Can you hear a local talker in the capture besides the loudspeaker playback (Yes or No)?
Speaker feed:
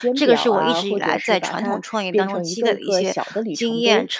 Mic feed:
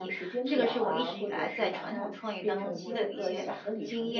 Yes